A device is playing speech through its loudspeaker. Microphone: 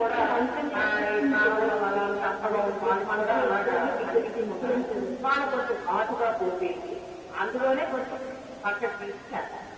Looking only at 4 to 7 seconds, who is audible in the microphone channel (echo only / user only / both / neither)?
echo only